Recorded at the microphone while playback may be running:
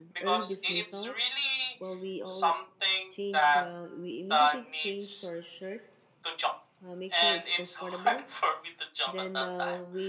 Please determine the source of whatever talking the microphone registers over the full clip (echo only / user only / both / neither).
both